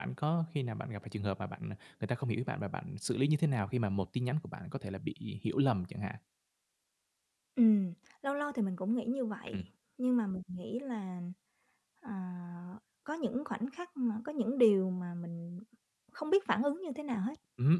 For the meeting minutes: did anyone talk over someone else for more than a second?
No

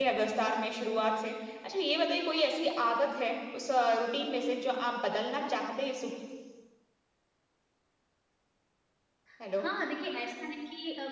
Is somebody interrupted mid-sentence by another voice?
No

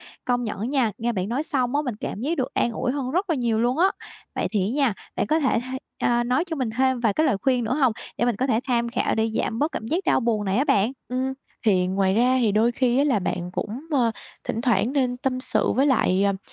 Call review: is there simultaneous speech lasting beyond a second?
No

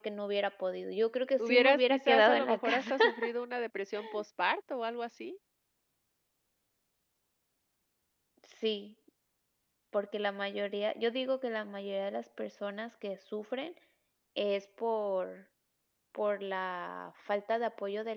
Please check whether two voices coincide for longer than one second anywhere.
Yes, from 1.4 s

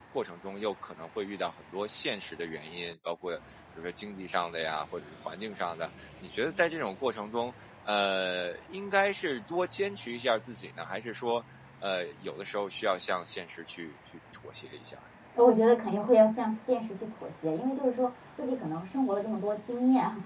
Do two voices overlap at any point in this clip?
No

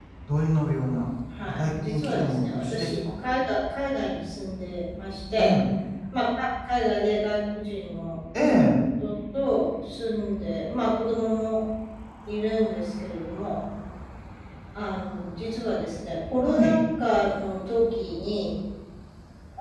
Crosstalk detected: Yes, from 1.4 s

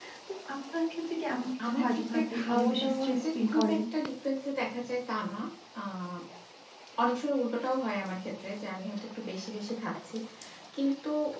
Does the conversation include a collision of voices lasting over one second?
Yes, from 1.6 s

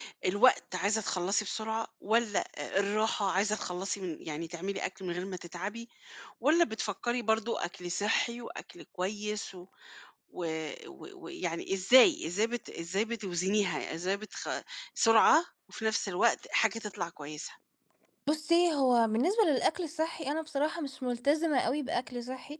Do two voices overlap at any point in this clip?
No

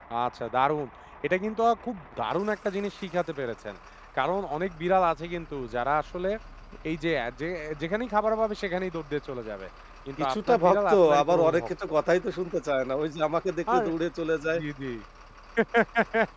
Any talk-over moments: Yes, from 10.2 s

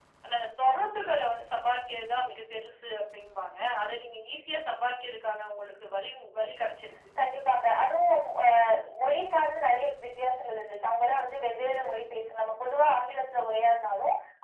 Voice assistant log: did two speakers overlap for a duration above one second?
No

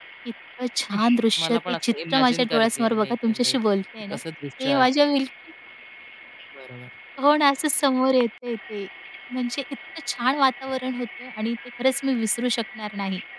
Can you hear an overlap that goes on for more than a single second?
Yes, from 1.4 s

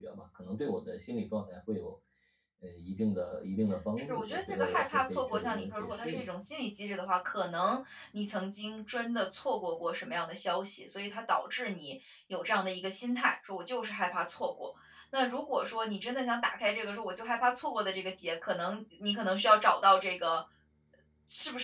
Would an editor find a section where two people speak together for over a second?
Yes, from 4.0 s

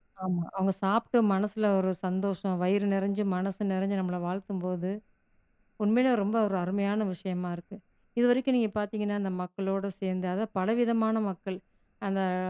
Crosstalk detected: No

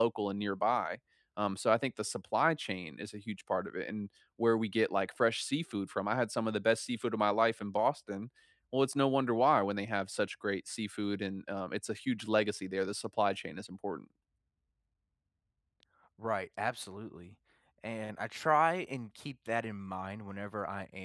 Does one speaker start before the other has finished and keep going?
No

